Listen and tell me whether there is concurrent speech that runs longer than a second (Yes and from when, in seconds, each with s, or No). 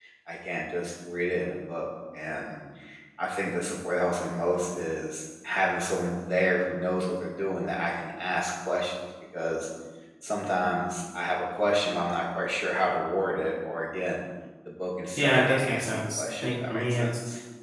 Yes, from 15.2 s